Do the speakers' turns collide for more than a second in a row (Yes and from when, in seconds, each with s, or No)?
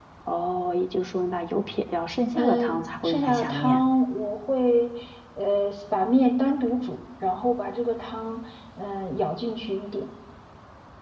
Yes, from 2.4 s